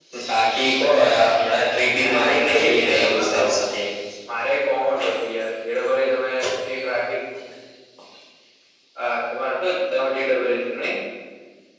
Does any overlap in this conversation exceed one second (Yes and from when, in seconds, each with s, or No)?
Yes, from 2.0 s